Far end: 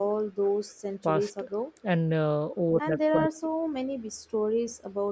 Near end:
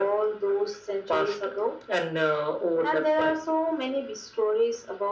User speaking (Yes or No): No